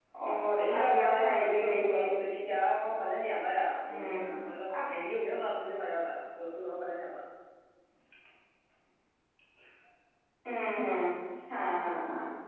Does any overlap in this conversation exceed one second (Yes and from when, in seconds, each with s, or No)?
Yes, from 0.5 s